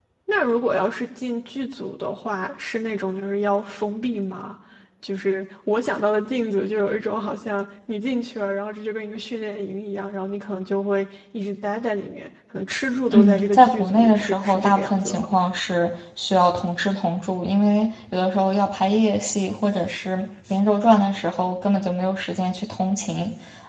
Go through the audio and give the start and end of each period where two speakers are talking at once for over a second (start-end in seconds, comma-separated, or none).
13.1-15.3